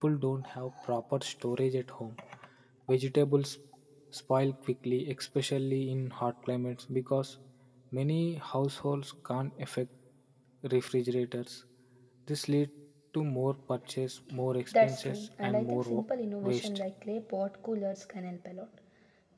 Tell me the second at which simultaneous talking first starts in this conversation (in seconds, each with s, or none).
14.7 s